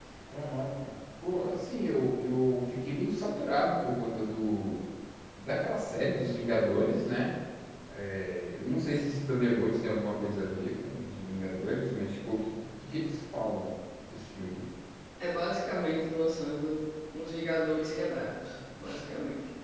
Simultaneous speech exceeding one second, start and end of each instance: none

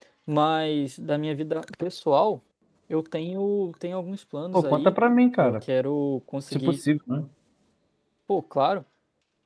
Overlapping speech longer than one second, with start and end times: none

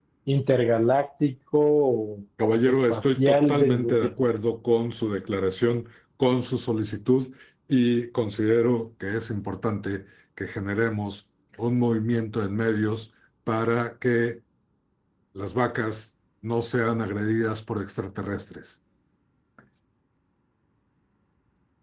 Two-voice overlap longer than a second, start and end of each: 2.7-4.1

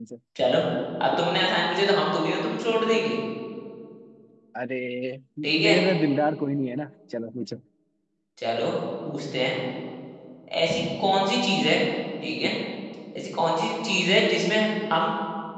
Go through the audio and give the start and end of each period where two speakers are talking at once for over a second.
none

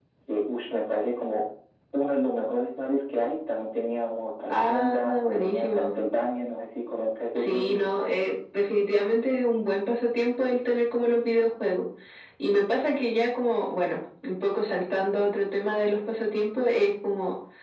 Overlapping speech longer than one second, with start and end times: 4.5-5.8

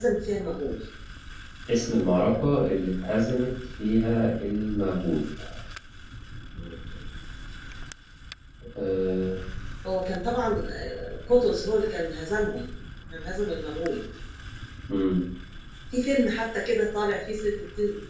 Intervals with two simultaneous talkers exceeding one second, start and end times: none

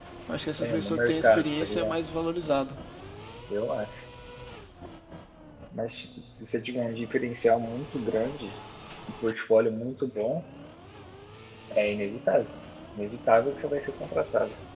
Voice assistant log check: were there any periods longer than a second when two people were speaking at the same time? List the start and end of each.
0.6-1.9

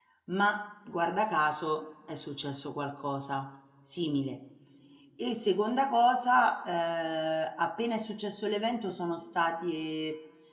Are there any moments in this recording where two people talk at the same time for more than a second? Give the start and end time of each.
none

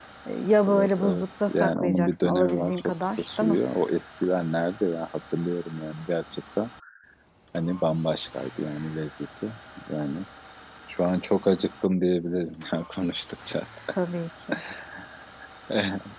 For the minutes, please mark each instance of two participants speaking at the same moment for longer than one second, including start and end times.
0.7-3.6

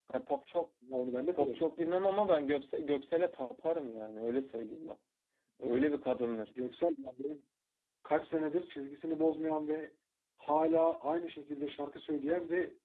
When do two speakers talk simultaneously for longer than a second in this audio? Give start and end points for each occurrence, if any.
none

